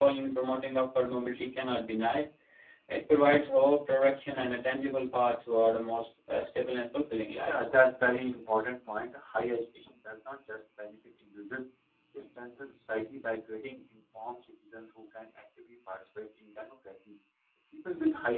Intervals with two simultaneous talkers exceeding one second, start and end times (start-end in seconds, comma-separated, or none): none